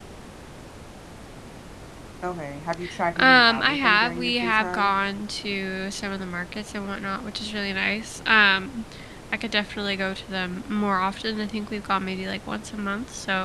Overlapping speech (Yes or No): Yes